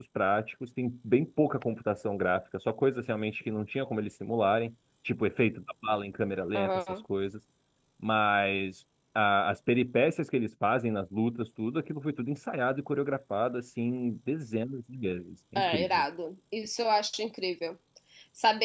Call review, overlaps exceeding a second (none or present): none